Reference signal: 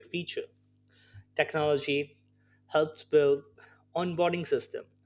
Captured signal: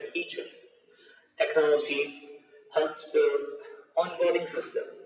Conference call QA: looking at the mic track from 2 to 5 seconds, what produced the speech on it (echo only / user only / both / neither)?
echo only